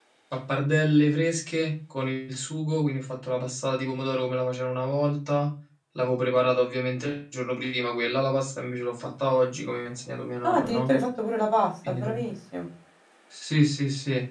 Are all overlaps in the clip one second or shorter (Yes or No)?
Yes